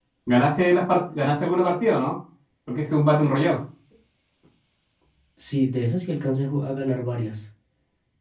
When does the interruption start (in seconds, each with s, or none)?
none